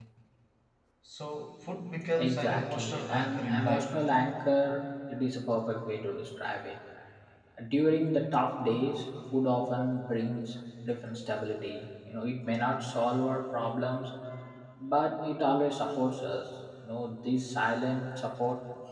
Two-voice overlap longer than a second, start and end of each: 2.2-3.9

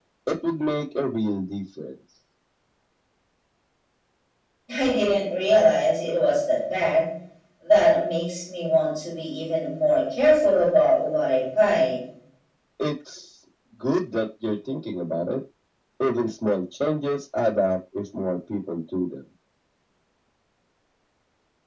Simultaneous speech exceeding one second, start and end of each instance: none

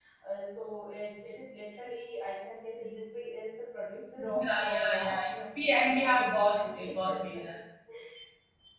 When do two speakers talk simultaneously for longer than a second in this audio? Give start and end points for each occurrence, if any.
4.3-7.5

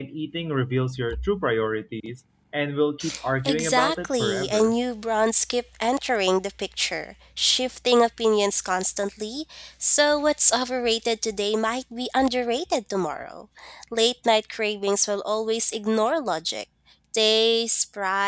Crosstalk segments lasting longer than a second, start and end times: 3.5-4.7

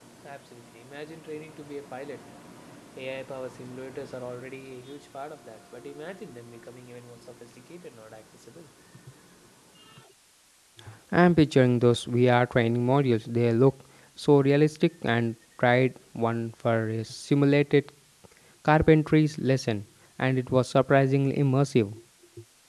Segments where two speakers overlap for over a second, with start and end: none

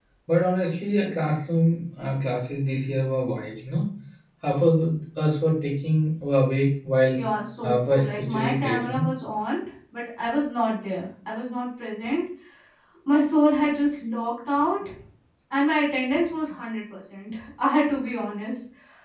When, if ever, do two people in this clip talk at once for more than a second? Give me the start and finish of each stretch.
7.6-9.1

